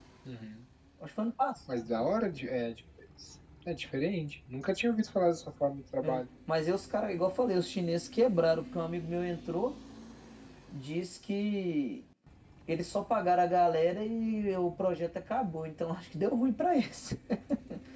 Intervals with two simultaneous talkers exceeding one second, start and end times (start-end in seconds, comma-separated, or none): none